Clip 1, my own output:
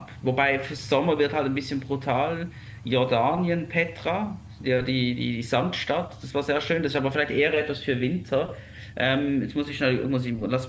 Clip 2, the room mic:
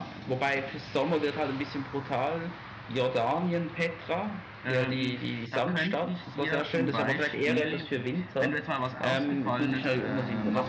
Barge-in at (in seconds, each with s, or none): 4.6 s